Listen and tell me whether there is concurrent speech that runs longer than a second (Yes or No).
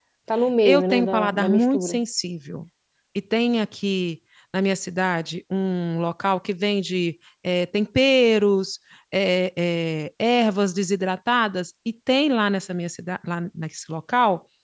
Yes